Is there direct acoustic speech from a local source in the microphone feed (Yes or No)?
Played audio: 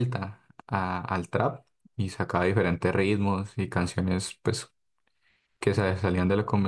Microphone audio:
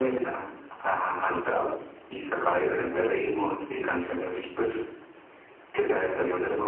No